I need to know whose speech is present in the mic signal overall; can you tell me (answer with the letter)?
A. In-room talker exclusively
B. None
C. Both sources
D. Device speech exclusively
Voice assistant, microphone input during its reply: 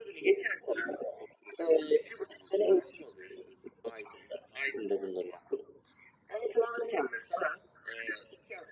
D